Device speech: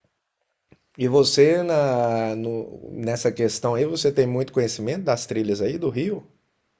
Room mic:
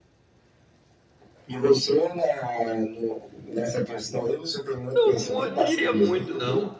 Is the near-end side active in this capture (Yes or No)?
Yes